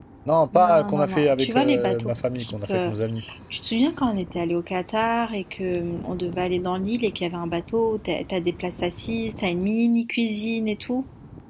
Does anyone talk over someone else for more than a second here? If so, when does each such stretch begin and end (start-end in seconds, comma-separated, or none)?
0.6-2.9